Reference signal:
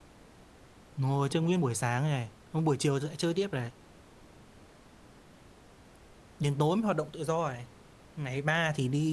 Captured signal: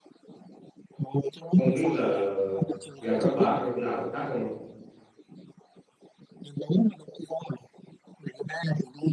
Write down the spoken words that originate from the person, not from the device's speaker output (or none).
Không biết là, là, là, là, là gần các bà có chỗ nào khác không? ạ?